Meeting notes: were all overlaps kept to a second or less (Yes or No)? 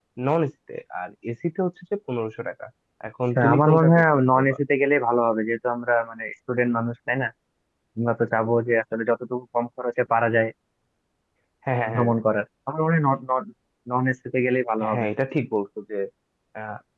No